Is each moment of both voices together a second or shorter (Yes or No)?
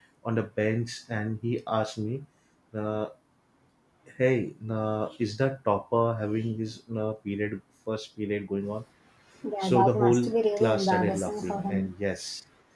No